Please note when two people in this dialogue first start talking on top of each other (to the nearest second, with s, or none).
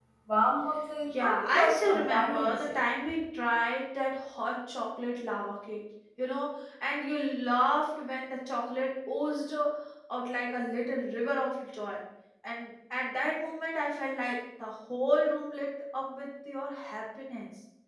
1 s